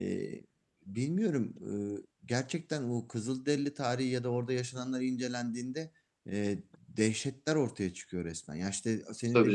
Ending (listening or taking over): listening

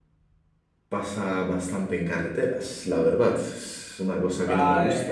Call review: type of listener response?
taking over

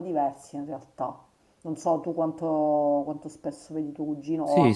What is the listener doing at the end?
taking over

